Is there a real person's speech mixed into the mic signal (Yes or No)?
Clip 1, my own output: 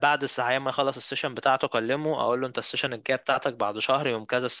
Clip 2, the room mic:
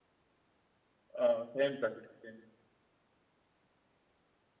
Yes